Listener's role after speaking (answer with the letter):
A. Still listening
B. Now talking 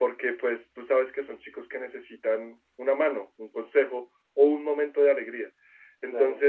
A